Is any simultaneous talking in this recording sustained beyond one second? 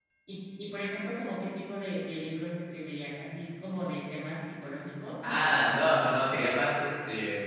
No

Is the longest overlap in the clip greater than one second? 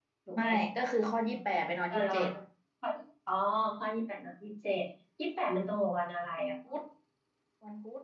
No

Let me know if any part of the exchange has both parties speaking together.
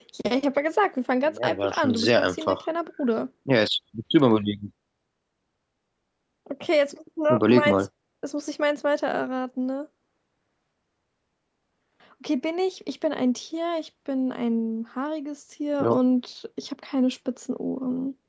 Yes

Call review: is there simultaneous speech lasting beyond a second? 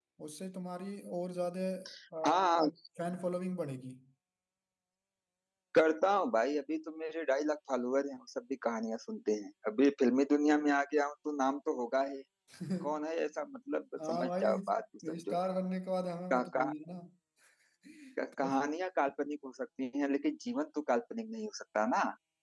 Yes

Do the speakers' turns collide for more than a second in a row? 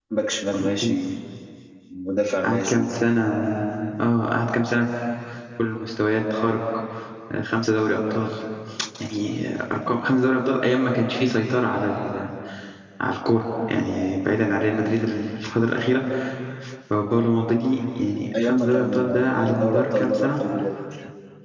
Yes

